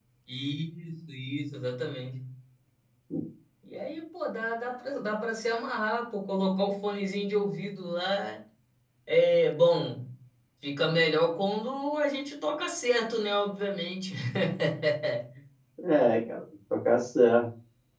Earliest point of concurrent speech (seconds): none

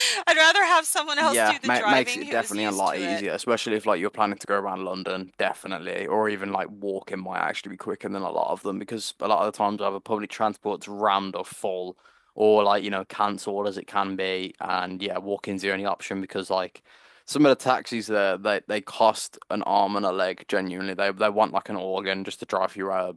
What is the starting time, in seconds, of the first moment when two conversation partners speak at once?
1.2 s

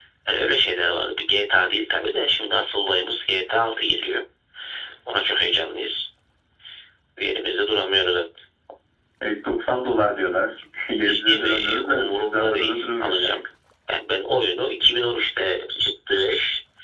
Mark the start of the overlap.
11.1 s

